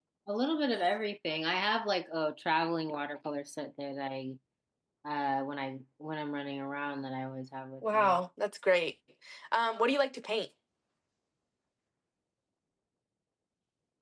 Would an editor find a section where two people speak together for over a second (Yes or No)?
No